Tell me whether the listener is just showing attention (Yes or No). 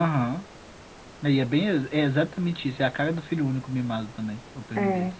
No